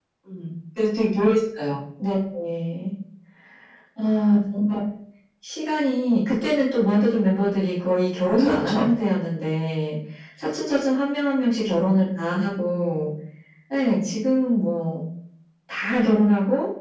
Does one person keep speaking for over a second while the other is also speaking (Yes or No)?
No